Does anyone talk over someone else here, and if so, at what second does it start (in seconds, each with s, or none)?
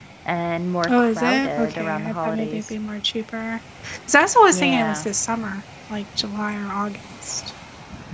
0.9 s